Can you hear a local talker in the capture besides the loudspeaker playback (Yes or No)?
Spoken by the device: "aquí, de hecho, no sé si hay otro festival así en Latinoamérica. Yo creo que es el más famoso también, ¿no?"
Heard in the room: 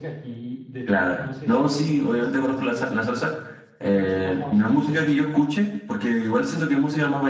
Yes